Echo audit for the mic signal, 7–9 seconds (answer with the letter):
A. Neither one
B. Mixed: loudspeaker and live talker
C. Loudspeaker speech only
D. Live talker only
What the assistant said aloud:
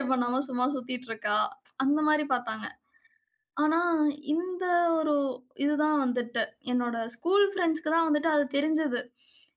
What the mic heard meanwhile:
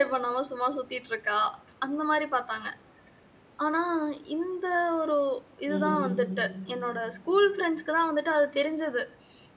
C